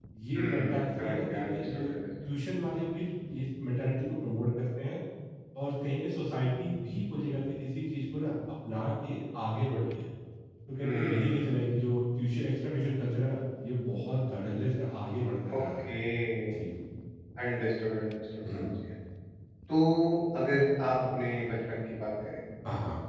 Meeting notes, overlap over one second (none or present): present